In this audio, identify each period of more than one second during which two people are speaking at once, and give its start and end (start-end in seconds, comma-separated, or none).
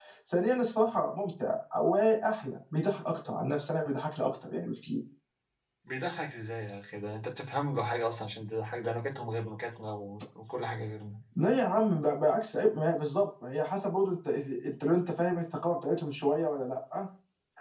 none